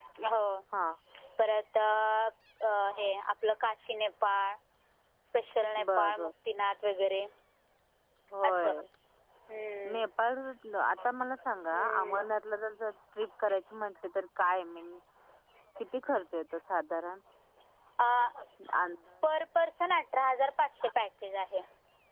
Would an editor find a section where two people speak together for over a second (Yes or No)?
No